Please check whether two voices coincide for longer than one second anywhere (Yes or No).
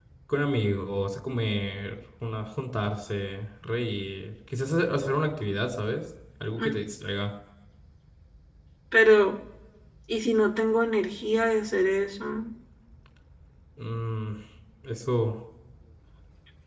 No